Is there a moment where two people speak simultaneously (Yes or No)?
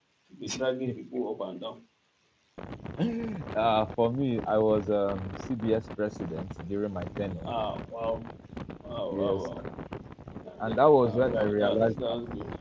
Yes